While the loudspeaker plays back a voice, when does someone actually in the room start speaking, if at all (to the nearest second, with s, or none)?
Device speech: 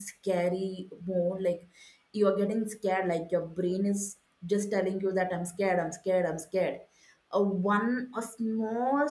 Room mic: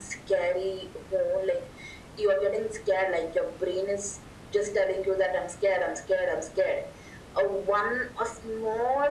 none